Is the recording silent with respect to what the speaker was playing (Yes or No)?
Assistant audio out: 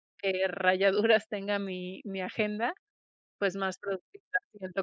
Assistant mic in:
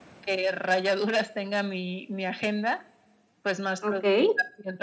No